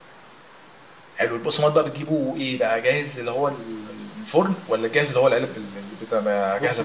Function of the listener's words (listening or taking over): taking over